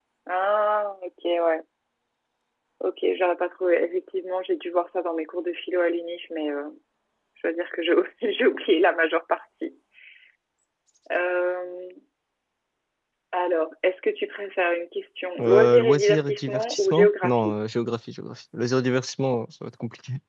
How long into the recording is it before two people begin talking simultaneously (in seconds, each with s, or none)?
15.4 s